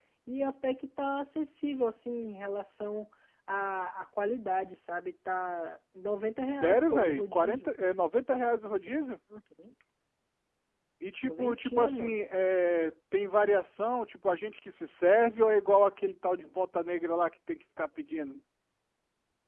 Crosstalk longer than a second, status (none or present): present